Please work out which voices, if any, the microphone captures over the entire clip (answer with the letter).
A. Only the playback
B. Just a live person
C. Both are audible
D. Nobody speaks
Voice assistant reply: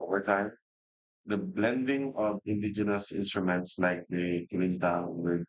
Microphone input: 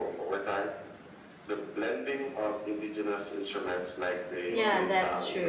C